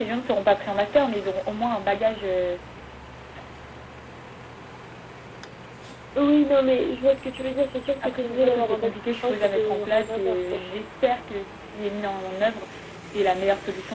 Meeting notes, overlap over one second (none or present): present